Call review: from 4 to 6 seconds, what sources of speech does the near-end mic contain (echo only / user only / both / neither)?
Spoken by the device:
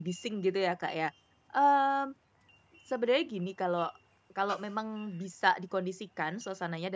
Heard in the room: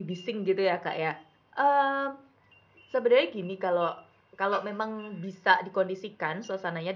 echo only